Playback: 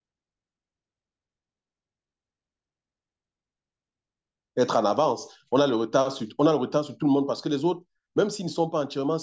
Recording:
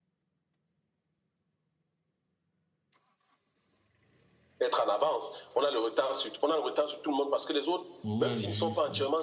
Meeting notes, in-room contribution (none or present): present